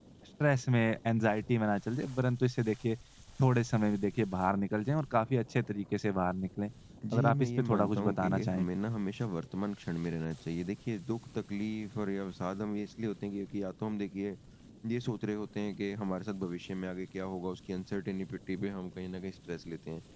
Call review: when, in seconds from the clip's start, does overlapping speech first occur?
7.1 s

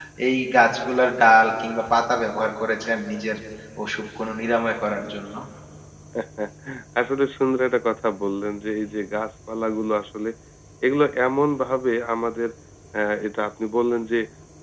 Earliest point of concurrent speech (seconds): none

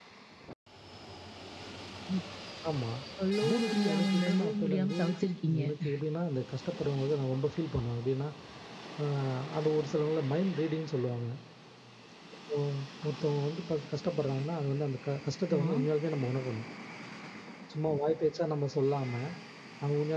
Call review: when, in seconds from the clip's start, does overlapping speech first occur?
3.4 s

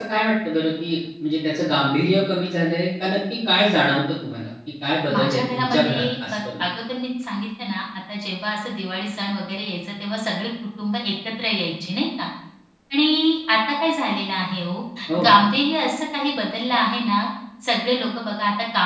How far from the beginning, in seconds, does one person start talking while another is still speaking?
5.1 s

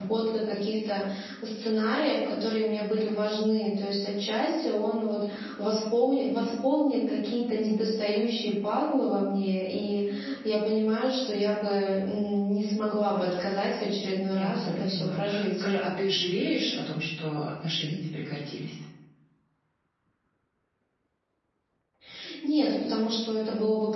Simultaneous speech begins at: 14.3 s

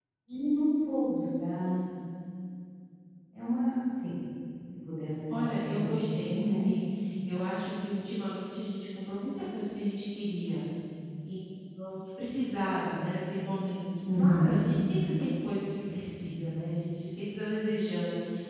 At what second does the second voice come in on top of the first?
5.3 s

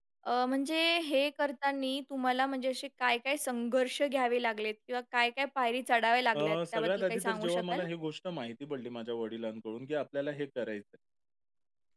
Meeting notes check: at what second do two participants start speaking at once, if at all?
6.3 s

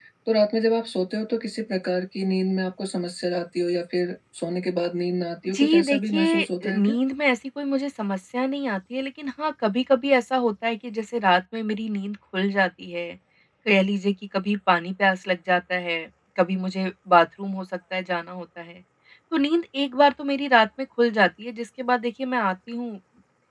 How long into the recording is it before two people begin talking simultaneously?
5.4 s

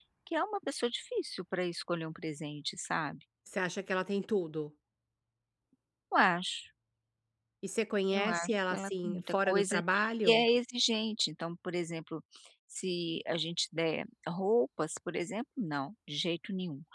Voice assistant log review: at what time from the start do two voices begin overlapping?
8.1 s

